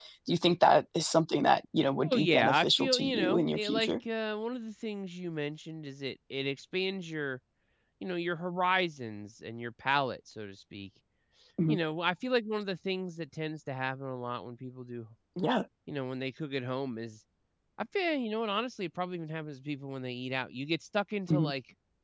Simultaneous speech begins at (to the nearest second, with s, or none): 2 s